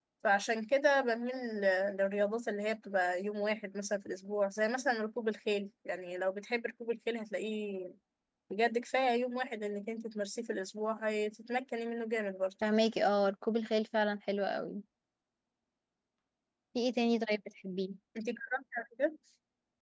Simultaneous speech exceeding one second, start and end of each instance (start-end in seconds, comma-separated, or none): none